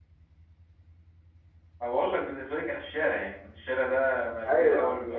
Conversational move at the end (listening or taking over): taking over